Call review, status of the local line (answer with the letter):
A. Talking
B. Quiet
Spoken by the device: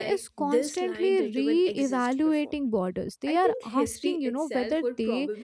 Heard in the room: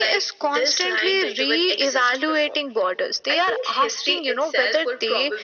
B